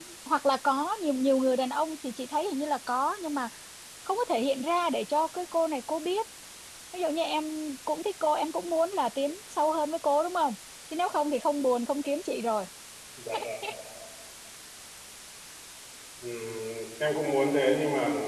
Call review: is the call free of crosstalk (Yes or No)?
Yes